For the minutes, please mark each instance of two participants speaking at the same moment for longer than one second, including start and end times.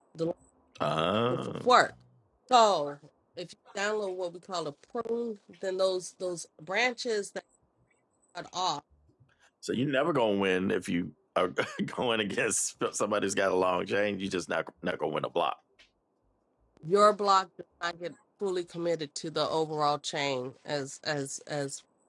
none

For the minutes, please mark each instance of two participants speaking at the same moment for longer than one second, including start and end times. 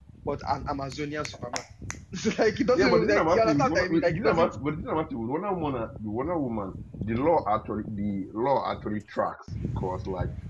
2.7-4.6

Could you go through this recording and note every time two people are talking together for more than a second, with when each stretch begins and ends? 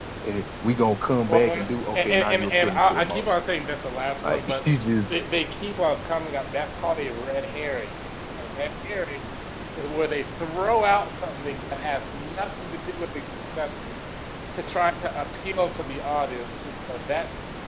1.3-3.4

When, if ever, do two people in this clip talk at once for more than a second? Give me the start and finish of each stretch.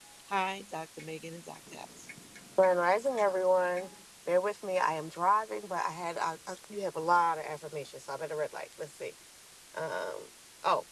none

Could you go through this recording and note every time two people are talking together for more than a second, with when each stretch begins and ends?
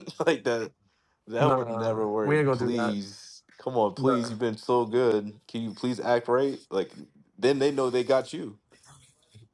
1.4-2.9

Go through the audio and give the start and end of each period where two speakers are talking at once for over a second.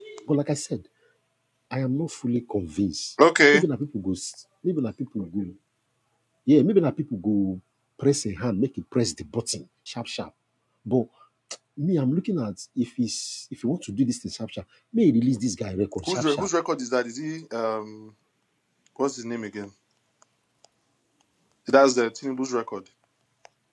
none

